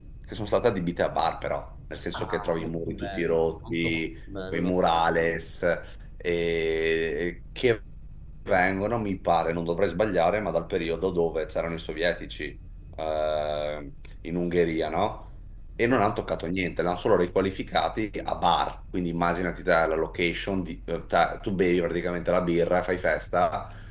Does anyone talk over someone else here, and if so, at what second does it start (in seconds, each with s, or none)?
2.1 s